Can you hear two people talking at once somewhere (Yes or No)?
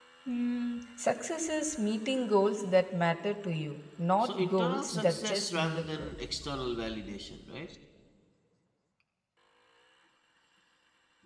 Yes